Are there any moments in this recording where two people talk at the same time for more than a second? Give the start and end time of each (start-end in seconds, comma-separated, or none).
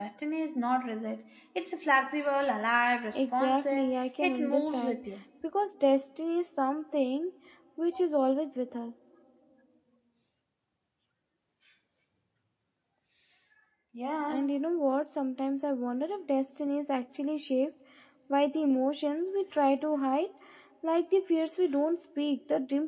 3.1-5.0